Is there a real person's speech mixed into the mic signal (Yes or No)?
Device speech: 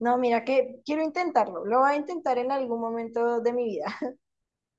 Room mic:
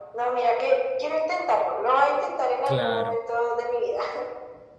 Yes